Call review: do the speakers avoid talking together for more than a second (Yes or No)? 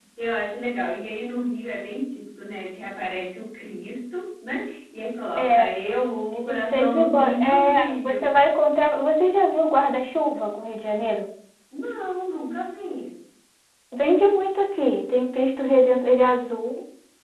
No